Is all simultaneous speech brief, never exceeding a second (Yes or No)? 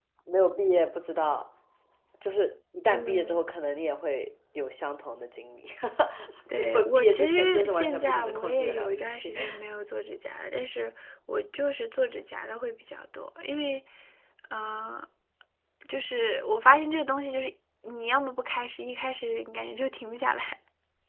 No